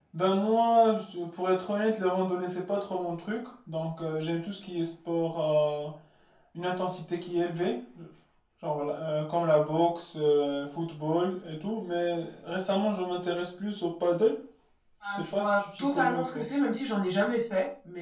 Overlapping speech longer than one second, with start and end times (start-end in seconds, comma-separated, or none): 15.1-16.4